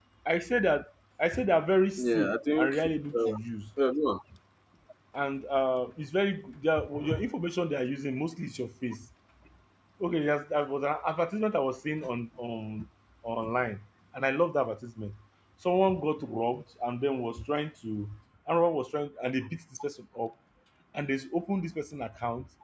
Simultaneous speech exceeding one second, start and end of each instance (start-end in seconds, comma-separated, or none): 2.0-3.4